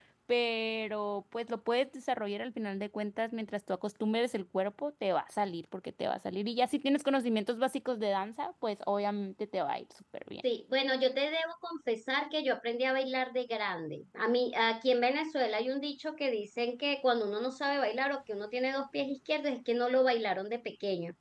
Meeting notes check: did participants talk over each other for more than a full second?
No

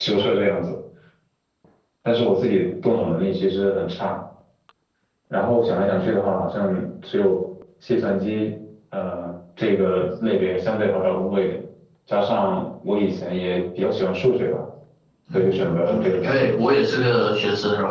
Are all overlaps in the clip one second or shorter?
No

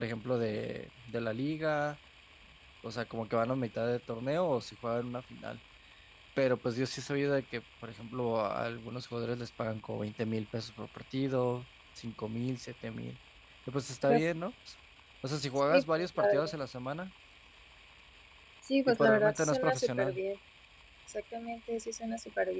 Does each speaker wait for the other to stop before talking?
No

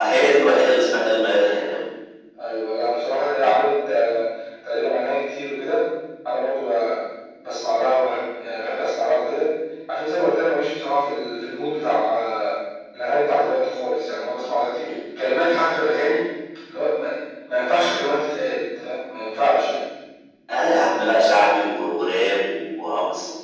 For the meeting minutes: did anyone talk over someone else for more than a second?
No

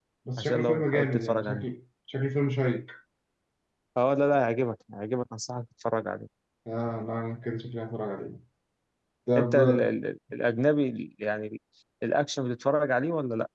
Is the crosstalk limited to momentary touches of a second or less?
No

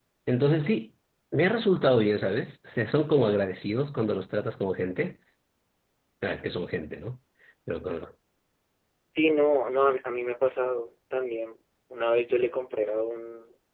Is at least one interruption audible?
No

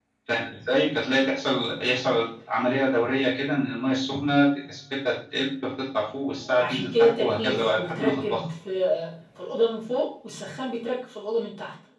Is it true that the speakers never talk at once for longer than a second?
No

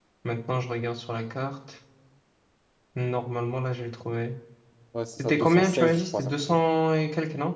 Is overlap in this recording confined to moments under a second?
No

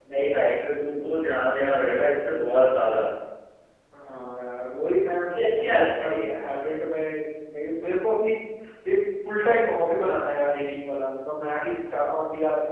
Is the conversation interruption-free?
No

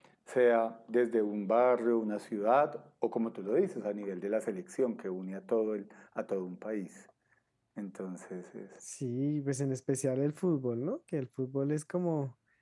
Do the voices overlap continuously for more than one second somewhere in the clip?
No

